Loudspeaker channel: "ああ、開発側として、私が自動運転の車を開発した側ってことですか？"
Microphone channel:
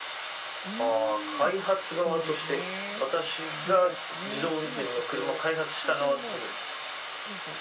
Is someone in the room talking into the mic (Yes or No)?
Yes